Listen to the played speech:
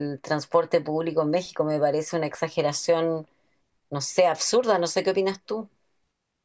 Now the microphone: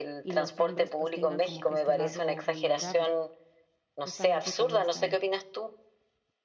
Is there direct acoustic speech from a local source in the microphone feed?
Yes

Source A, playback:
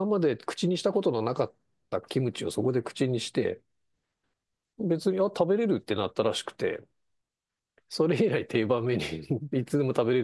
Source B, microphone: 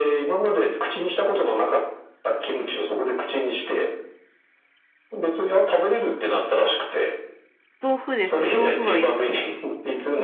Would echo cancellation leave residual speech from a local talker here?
Yes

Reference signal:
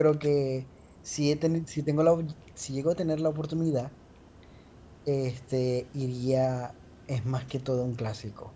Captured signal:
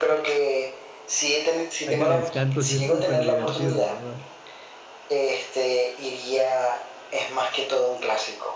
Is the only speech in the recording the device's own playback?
No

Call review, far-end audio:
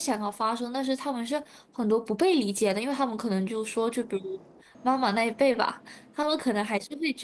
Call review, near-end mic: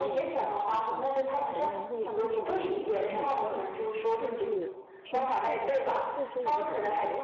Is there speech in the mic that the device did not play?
Yes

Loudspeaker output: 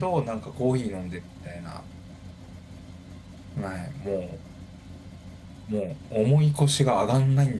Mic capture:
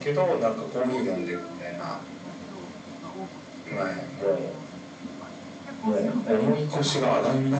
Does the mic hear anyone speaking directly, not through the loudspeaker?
Yes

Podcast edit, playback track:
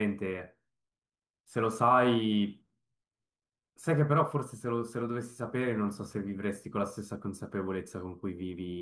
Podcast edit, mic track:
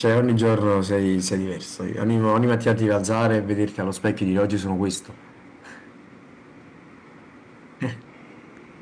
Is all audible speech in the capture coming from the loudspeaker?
No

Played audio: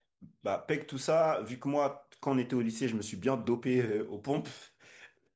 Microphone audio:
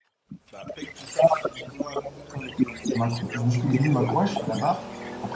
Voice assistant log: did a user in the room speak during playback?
Yes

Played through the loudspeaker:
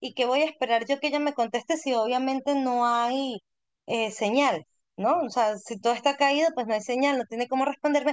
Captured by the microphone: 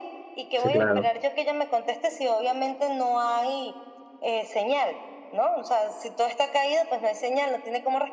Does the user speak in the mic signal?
Yes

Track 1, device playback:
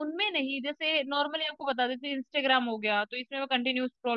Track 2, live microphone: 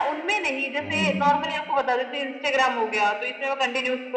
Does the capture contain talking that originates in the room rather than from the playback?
Yes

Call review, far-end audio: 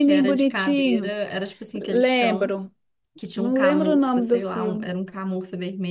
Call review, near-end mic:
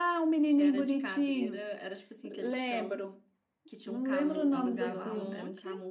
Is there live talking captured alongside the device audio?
Yes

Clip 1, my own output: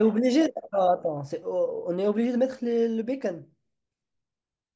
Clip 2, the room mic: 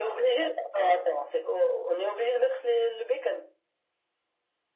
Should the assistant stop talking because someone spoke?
No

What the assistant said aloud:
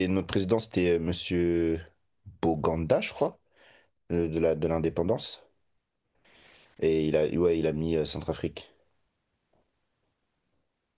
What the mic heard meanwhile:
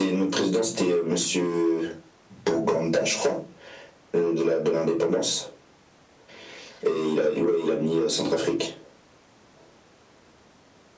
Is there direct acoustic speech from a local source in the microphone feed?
No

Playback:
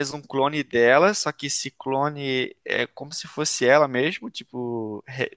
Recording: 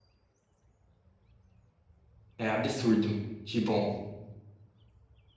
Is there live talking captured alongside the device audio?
Yes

